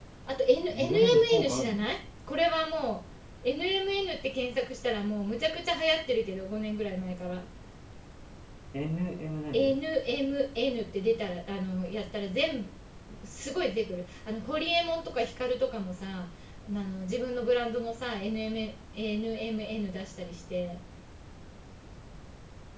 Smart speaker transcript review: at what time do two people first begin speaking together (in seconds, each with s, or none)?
0.7 s